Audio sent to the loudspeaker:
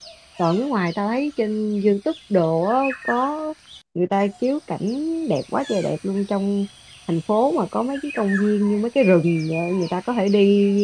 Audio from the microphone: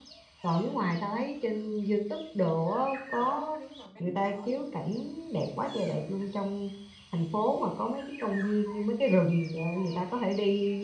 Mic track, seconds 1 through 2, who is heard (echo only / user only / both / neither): echo only